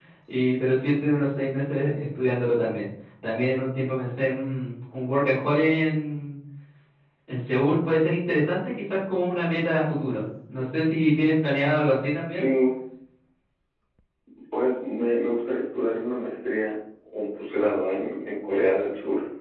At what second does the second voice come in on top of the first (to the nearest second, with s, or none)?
none